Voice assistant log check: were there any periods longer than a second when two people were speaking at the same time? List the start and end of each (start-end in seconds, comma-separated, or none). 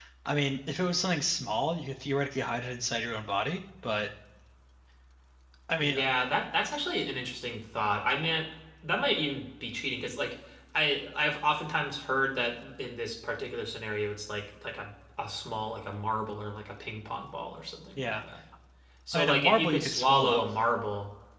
19.1-20.4